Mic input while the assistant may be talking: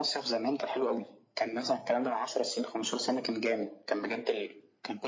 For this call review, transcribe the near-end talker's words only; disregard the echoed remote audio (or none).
none